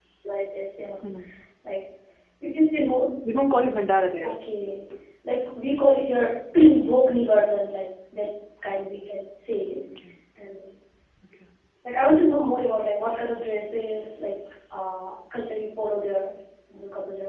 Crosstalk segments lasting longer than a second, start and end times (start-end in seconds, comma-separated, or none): none